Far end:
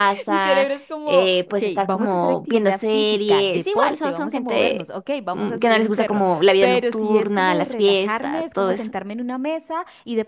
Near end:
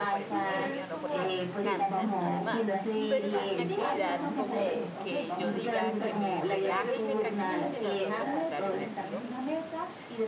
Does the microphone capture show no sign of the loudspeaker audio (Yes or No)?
No